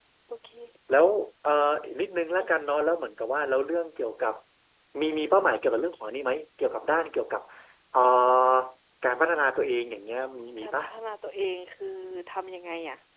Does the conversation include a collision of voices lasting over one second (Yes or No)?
No